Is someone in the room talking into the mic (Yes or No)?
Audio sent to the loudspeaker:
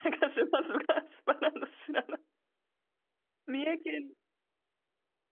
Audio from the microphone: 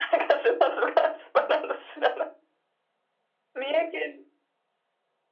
No